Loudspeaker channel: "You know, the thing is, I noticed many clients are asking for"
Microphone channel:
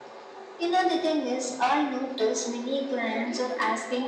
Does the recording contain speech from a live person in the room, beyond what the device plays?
Yes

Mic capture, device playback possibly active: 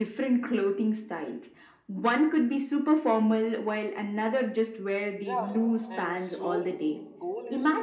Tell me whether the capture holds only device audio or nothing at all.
No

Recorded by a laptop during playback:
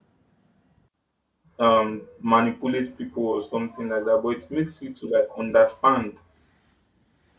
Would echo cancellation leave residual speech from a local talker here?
Yes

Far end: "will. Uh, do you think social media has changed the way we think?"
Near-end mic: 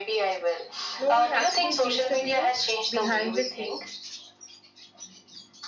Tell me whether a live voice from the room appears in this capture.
Yes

